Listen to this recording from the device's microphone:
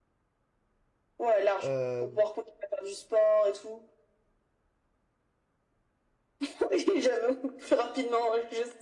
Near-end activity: present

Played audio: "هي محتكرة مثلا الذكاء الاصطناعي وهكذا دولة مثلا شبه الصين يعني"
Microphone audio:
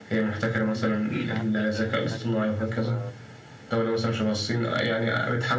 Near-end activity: present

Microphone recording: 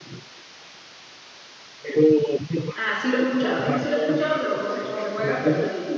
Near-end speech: present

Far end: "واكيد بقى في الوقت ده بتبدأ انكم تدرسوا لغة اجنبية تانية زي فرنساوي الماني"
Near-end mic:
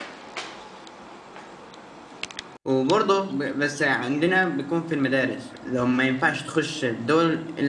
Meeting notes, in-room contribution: present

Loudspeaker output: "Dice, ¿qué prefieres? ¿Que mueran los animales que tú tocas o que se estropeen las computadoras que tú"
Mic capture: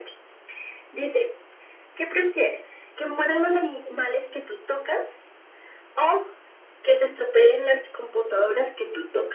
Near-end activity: none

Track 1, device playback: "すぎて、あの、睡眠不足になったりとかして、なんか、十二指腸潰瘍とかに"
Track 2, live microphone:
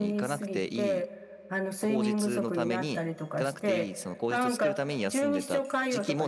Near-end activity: present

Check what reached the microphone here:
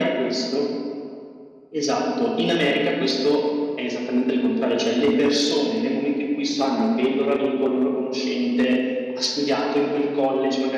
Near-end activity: none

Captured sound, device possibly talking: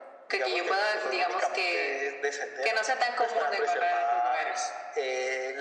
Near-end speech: none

